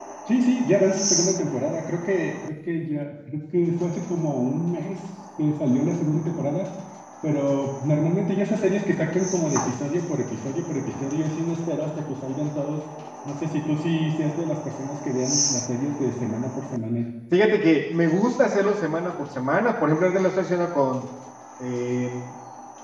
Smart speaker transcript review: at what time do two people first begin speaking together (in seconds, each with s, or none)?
none